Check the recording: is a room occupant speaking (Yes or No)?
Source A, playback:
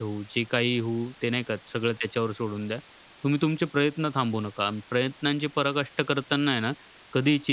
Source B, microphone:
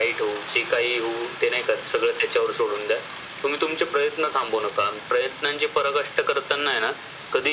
No